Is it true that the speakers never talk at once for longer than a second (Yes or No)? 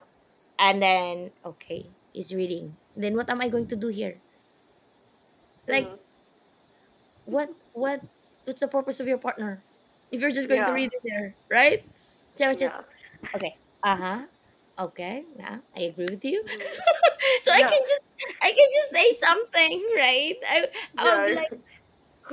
Yes